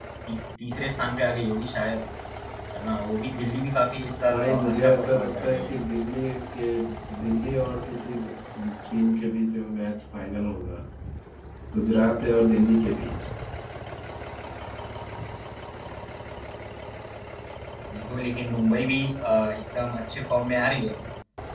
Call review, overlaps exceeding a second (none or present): present